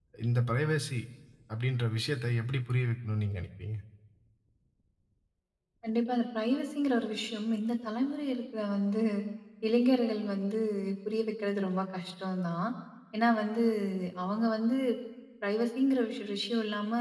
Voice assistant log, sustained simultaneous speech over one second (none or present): none